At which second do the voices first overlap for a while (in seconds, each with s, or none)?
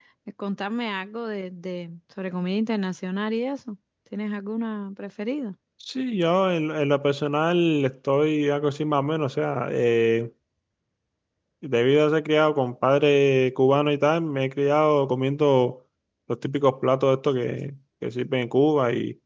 none